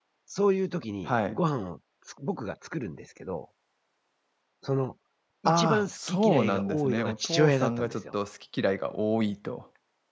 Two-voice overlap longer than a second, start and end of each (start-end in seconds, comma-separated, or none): 5.5-8.0